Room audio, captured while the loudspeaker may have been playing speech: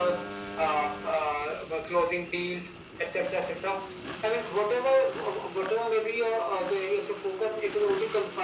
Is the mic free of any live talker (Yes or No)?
Yes